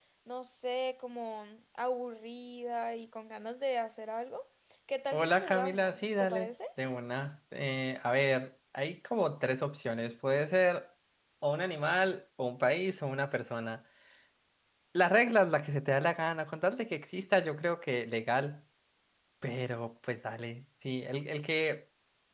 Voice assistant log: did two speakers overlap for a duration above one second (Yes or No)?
Yes